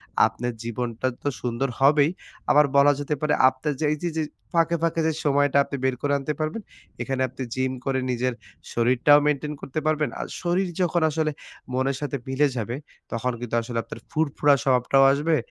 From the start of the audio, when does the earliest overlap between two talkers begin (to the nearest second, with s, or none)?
none